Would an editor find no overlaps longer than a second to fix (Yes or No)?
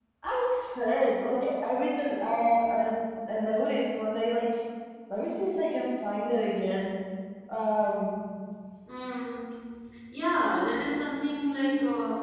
Yes